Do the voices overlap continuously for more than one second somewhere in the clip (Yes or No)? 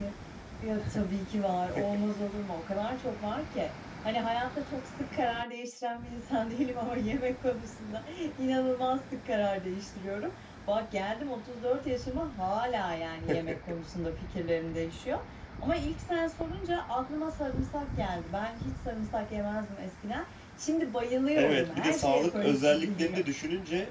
Yes